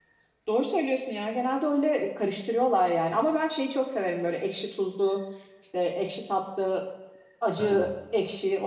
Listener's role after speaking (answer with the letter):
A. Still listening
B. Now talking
A